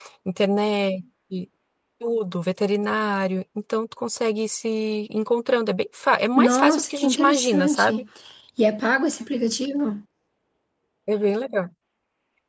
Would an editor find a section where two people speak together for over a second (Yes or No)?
Yes